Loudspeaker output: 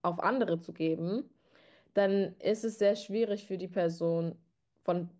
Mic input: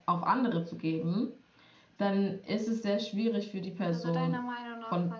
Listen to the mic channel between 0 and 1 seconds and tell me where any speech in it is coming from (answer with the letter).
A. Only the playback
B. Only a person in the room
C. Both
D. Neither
A